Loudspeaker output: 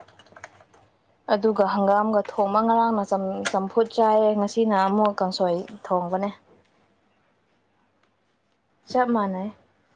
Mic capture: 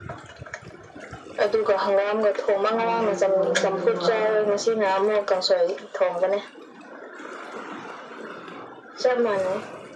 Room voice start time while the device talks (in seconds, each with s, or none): 2.7 s